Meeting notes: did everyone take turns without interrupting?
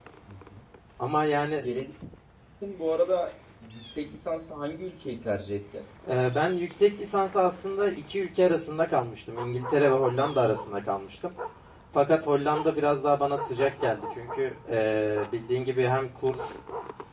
Yes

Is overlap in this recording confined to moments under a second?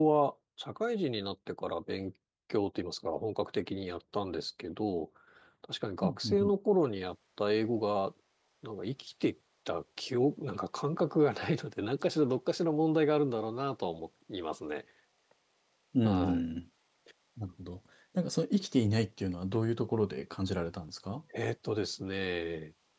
Yes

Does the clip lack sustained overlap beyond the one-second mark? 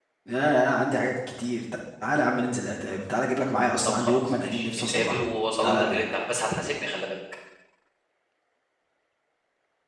No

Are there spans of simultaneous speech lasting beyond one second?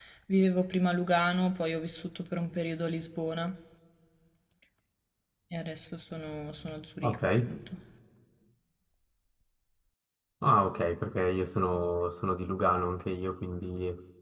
No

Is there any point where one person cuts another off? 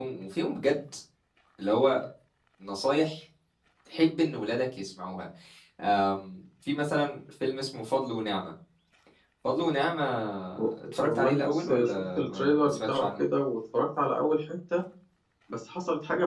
Yes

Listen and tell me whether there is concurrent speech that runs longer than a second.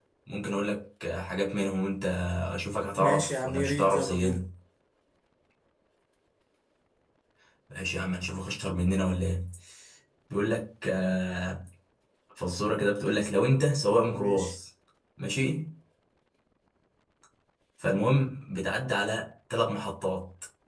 Yes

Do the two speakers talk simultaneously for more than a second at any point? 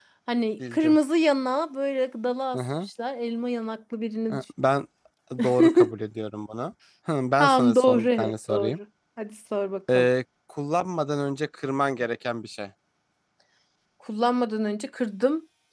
Yes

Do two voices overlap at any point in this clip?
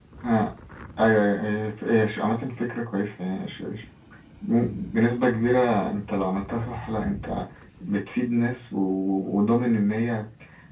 No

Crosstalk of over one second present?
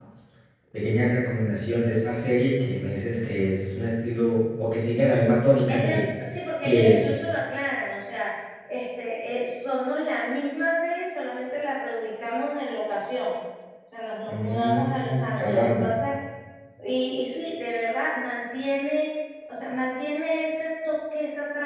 Yes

